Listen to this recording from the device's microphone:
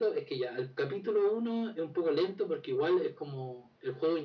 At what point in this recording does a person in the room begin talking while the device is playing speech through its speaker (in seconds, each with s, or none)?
none